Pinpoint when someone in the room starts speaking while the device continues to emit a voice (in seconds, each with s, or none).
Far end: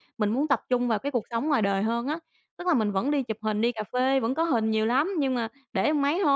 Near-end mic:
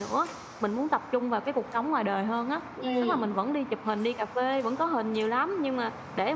2.8 s